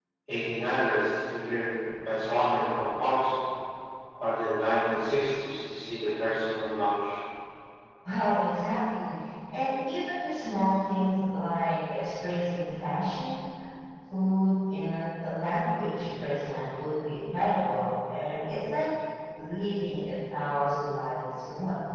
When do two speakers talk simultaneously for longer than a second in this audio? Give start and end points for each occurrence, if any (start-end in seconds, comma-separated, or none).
none